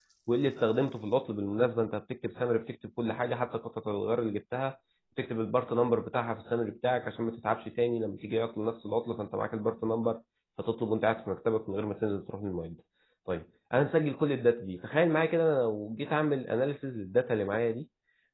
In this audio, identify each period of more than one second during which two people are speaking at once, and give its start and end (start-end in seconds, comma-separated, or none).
none